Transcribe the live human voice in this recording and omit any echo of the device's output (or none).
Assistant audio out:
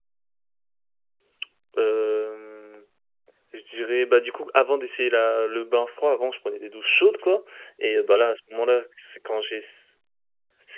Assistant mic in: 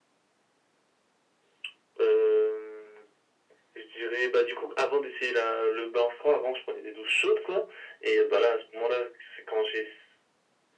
none